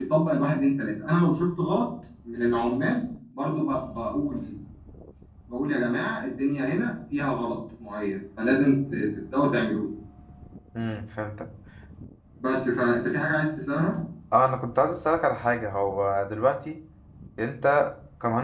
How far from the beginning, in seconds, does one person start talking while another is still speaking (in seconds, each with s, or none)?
none